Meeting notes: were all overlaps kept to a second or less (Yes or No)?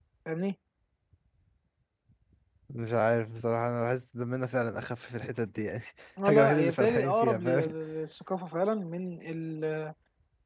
No